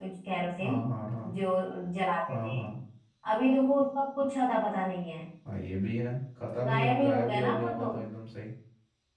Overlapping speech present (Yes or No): Yes